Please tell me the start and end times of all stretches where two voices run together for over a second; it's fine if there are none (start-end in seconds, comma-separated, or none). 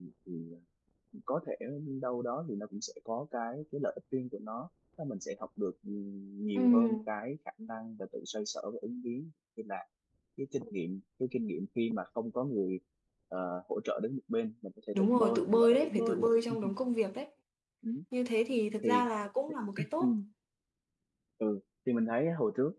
14.9-16.2